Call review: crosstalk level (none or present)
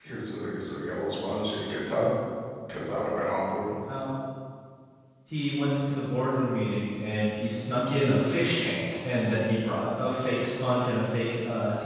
none